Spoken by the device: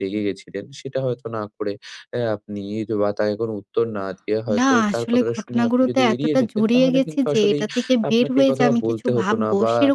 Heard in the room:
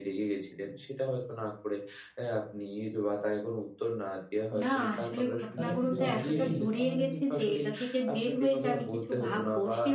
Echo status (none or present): present